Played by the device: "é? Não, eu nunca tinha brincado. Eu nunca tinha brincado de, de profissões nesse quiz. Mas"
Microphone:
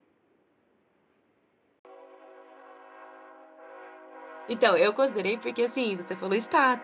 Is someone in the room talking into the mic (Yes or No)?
Yes